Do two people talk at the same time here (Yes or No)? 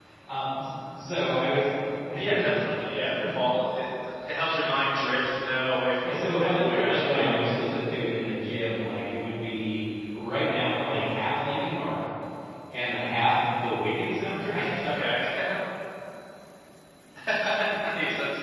Yes